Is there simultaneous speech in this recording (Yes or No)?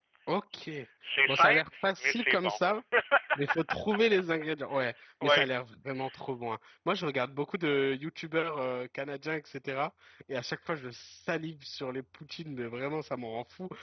Yes